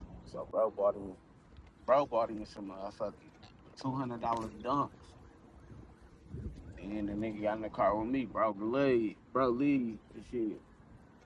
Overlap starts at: none

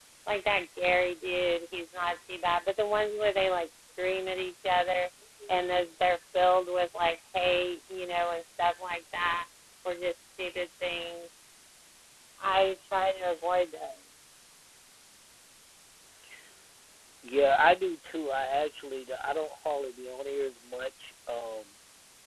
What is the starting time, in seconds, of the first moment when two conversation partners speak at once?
none

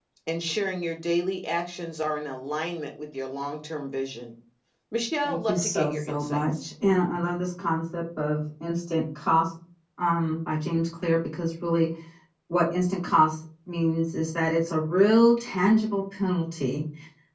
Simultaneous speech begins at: 5.2 s

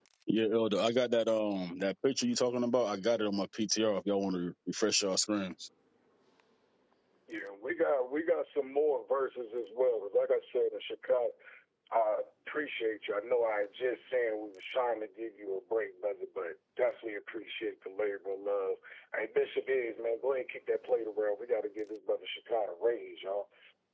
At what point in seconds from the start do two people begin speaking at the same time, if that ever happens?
none

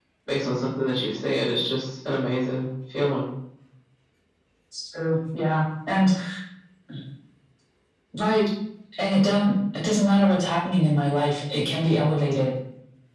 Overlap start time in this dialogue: none

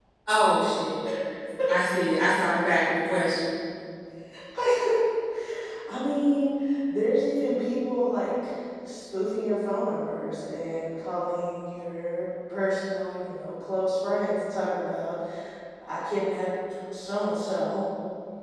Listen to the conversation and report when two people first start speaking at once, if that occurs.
none

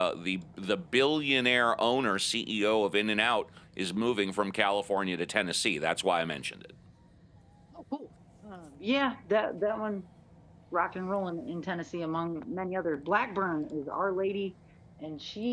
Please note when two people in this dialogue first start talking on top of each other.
none

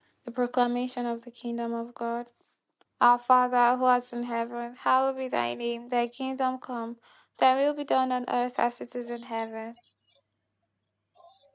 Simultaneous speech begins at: none

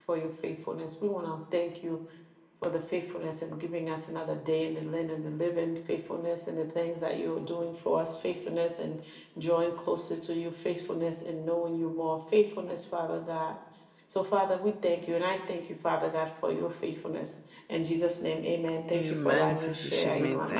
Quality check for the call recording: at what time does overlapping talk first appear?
18.9 s

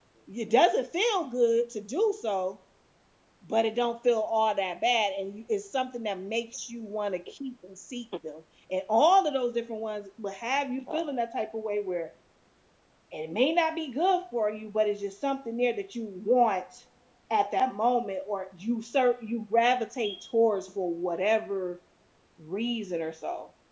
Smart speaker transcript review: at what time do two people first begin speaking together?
none

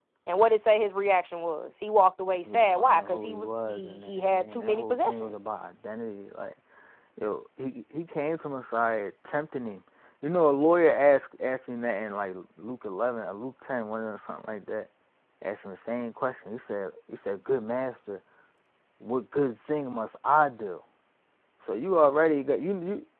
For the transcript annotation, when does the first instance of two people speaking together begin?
2.4 s

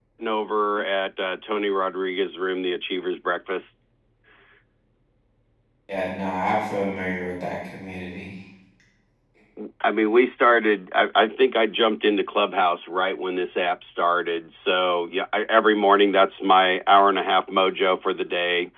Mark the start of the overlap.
none

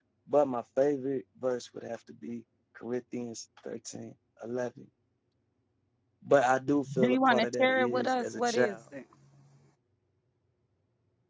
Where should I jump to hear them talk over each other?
7.0 s

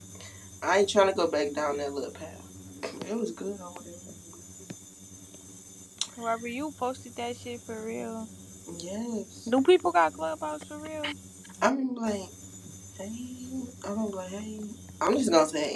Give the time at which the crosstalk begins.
none

